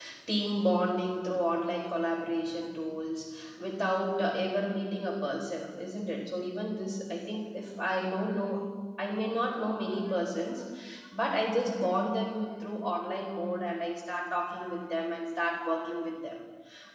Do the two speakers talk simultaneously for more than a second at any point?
No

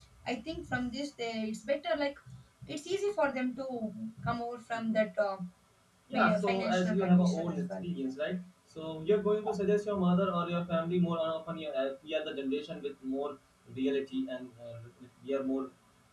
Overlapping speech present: Yes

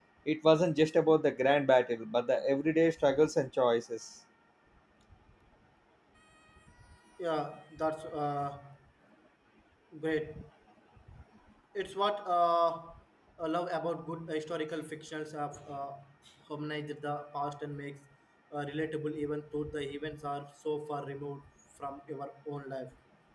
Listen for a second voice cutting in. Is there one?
No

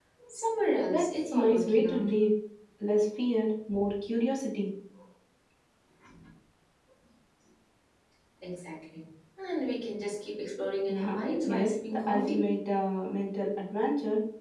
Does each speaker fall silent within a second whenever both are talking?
No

